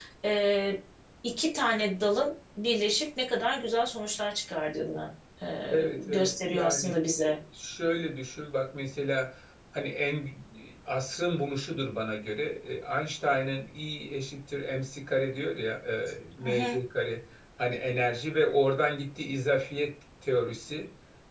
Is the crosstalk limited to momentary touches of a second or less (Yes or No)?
No